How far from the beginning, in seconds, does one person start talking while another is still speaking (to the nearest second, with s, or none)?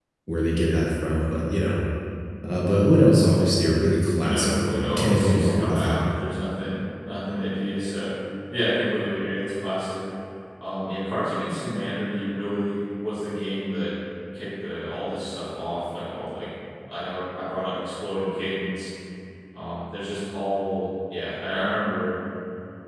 4 s